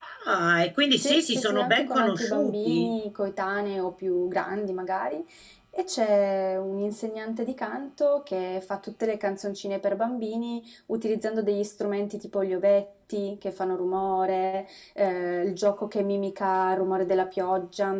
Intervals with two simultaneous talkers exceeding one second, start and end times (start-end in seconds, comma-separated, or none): 1.0-2.9